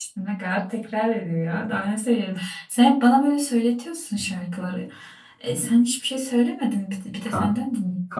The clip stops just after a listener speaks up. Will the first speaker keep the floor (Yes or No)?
No